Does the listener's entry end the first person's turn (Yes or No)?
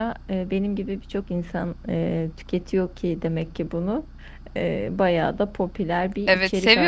Yes